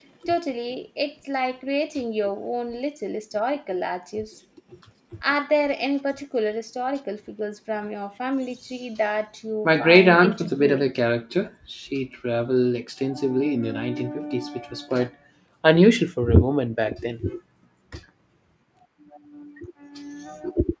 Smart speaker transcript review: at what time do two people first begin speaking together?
9.7 s

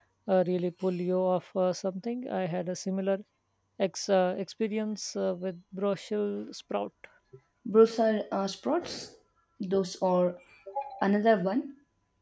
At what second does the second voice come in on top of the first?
none

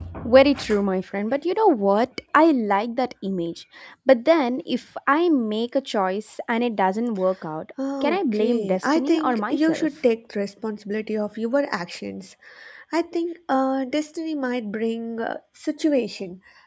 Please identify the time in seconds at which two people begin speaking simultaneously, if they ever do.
7.8 s

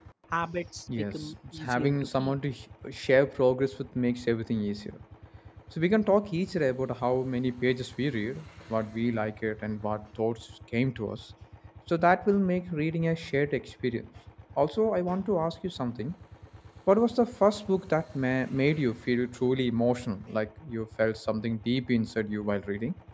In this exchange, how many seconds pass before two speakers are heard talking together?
1.1 s

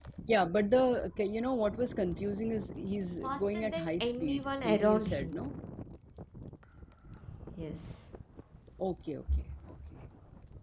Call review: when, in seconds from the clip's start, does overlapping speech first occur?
3.2 s

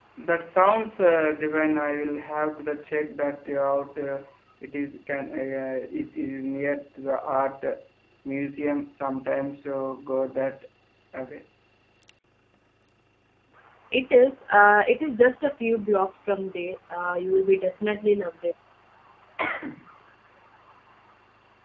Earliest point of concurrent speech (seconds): none

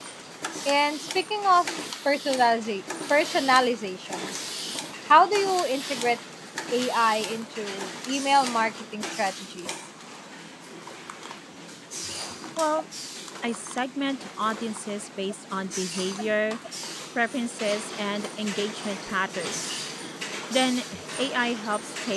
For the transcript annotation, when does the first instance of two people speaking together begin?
none

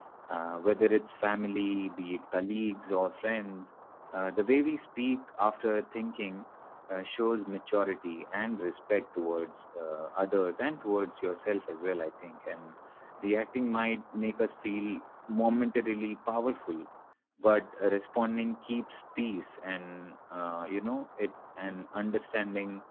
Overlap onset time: none

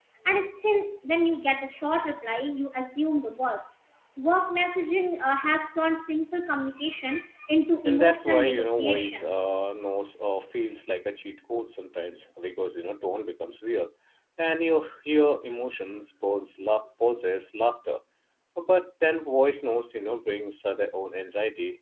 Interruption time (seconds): 7.8 s

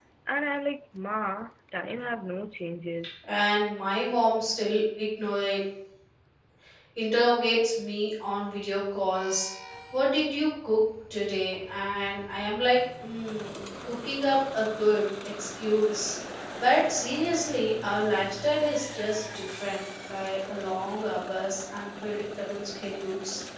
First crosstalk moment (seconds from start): none

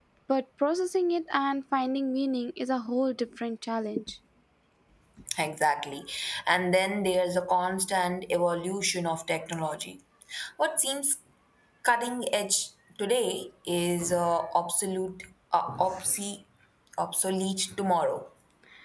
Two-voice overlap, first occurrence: none

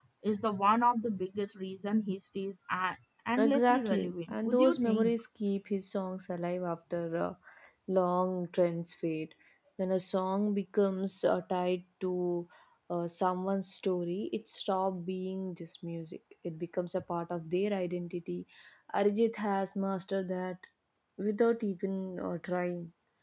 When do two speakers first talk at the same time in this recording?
3.4 s

